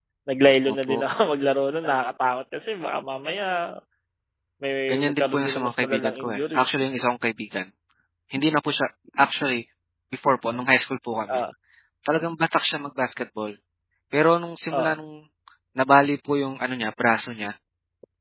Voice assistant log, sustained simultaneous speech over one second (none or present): present